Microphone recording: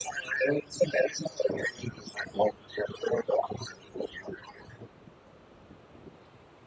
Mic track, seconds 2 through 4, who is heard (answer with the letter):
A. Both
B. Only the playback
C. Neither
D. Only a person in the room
B